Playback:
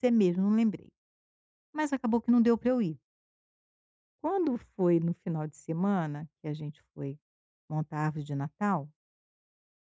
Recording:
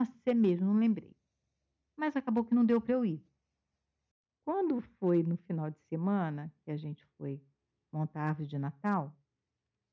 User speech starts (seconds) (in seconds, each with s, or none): none